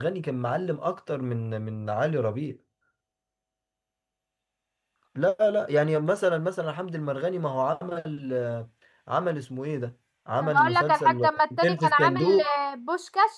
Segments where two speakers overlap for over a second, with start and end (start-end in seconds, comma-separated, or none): 10.4-12.4